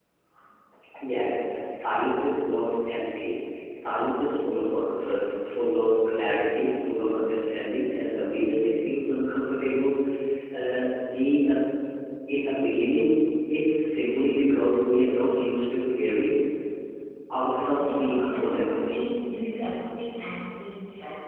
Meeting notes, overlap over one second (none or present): present